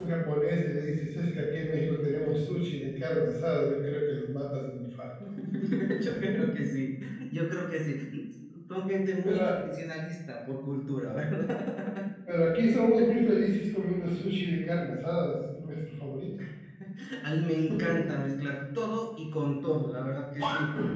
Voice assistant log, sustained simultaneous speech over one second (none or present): none